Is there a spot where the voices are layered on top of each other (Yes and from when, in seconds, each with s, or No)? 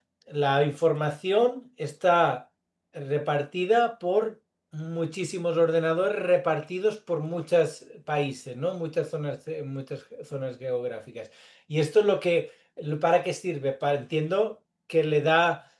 No